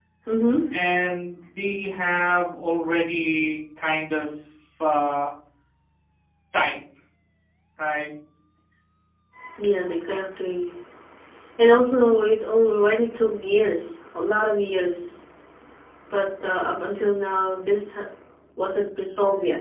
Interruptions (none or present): none